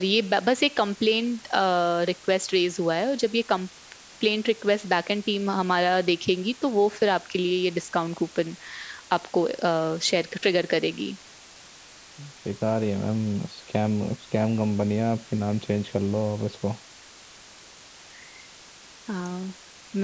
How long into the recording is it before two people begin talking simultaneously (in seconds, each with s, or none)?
none